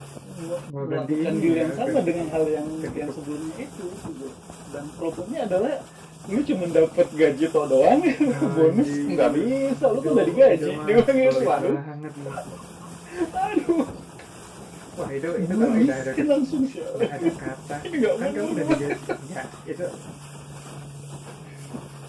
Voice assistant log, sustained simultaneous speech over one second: present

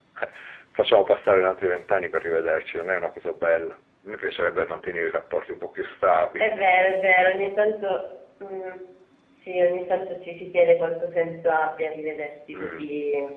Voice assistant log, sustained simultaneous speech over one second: none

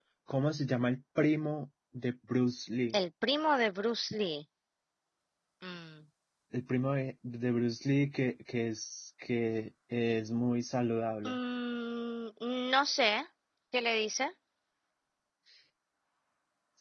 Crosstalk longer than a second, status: none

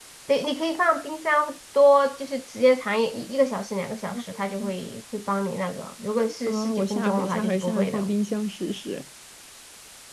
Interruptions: present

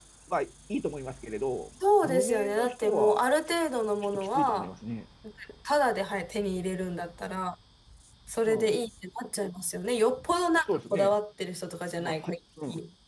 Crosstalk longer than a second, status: present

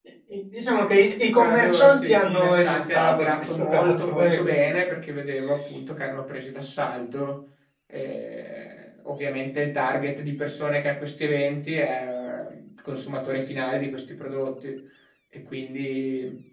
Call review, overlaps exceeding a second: present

